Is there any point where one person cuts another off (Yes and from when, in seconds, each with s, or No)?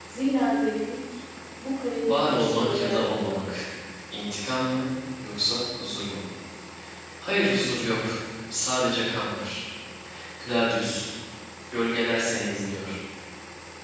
Yes, from 2.0 s